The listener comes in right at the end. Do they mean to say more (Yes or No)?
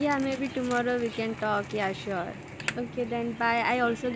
No